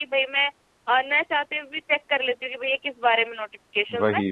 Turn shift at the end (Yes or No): No